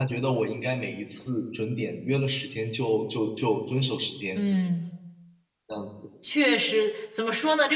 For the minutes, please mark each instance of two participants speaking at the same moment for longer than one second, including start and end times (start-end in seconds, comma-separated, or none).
none